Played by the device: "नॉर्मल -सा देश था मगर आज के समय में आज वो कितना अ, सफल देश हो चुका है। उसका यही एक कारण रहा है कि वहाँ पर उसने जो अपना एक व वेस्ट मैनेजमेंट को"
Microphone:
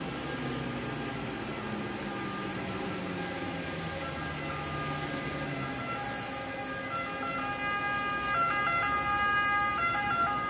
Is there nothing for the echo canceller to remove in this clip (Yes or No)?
Yes